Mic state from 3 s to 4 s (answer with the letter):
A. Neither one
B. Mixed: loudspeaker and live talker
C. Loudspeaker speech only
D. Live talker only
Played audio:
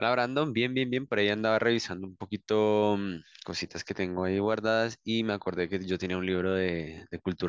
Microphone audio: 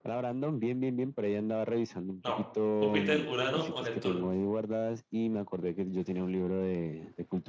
B